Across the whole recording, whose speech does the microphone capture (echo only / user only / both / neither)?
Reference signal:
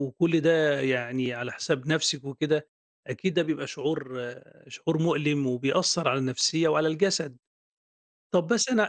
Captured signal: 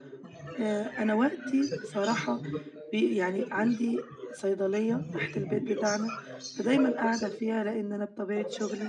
both